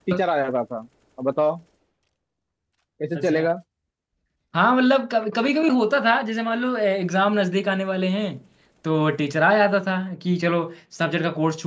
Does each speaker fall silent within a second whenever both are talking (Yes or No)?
Yes